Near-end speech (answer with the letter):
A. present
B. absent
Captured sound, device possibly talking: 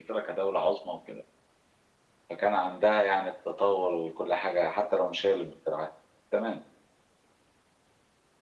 B